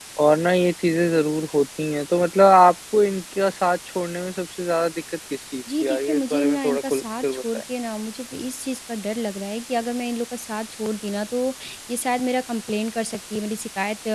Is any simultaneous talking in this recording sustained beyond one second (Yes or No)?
Yes